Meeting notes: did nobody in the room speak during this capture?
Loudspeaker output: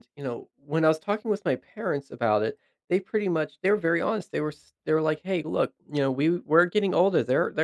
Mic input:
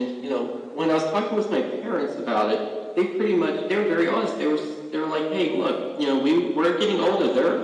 Yes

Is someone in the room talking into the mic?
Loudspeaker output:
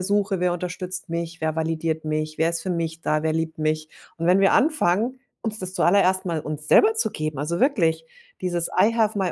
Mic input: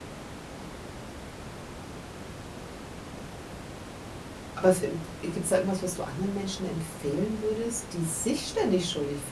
Yes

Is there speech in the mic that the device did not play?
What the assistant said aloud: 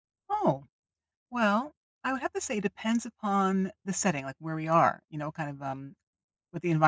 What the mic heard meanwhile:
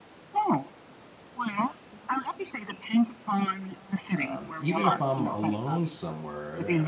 Yes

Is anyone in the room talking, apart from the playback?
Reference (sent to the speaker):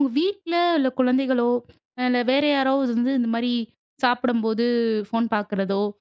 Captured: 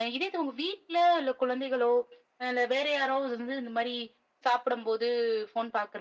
No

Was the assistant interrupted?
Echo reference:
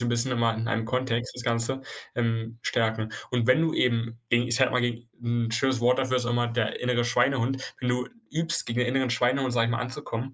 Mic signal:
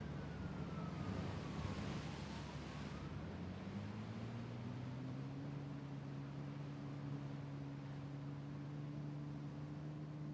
No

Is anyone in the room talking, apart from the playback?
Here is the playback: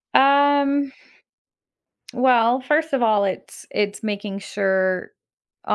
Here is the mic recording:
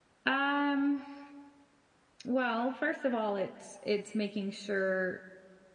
No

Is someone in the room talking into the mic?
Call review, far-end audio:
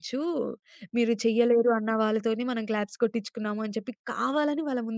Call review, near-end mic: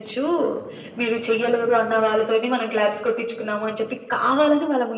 No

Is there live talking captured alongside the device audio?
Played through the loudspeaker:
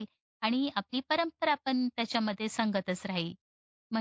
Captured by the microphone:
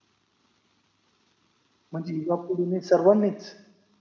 Yes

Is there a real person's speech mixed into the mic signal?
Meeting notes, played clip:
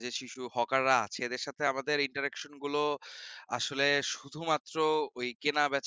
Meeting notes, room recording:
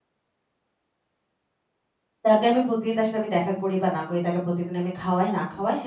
Yes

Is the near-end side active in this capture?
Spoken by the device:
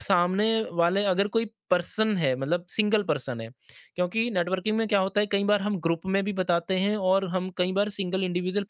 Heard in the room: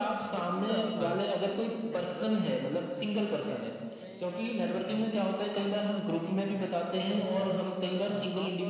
Yes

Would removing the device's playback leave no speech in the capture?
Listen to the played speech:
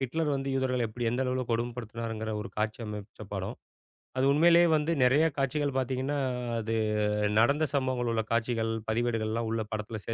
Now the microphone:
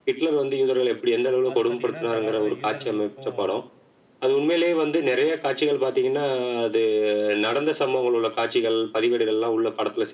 No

